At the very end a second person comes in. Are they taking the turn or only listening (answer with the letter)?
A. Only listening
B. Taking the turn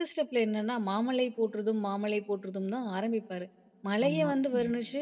A